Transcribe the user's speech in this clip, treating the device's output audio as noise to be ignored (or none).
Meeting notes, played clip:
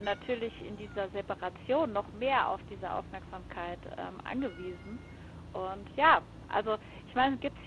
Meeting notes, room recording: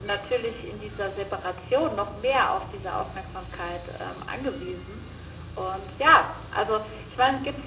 none